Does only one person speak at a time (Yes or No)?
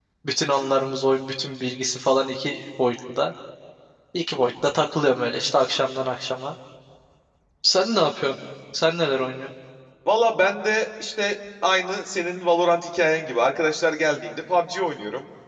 Yes